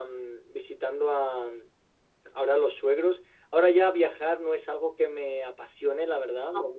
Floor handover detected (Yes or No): No